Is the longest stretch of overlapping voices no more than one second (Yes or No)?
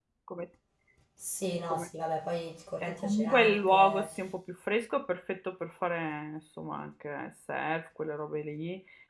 No